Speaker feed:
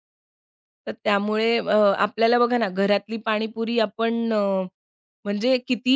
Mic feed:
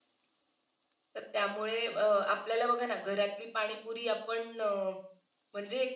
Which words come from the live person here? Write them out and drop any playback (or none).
none